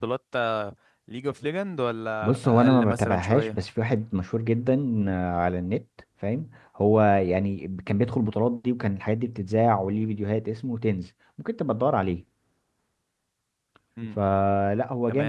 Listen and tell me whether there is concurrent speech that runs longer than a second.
Yes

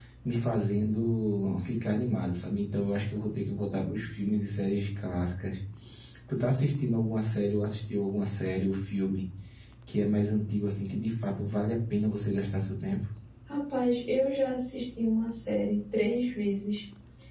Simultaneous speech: No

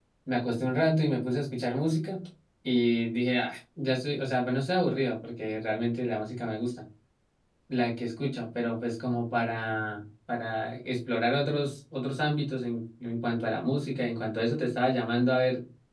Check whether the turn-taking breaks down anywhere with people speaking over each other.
No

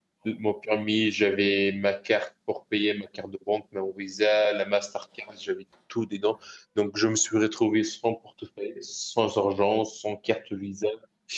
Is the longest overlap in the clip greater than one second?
No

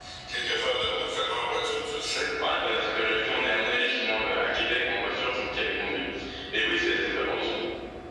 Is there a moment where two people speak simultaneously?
No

